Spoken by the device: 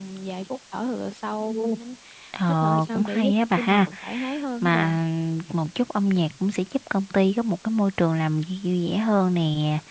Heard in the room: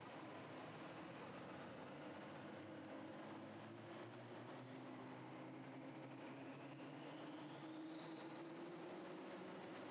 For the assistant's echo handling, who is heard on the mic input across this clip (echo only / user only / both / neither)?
neither